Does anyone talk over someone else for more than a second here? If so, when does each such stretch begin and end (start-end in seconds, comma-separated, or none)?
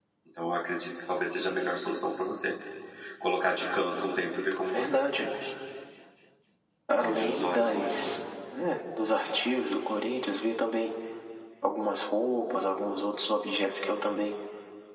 7.0-8.2